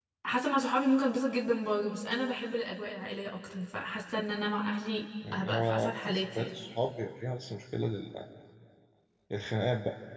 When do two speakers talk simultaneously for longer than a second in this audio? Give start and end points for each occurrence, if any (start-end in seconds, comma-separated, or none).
5.3-6.5